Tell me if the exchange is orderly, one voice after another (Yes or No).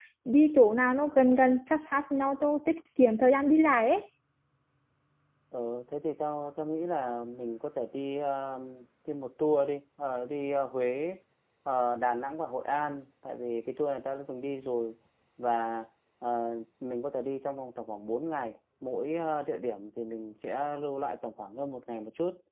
Yes